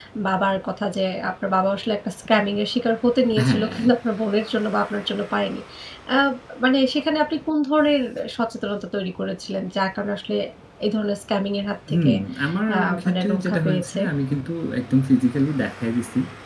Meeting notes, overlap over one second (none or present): present